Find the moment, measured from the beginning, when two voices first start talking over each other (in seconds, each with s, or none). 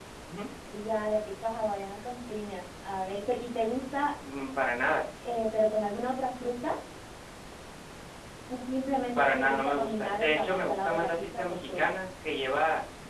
9.2 s